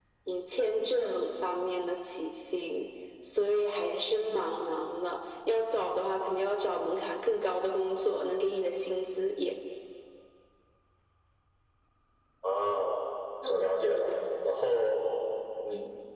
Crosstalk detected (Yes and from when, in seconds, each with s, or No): No